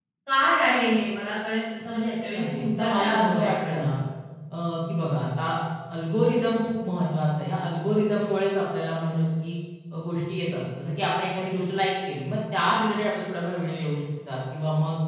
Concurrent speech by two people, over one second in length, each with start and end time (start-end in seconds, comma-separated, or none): 2.4-3.8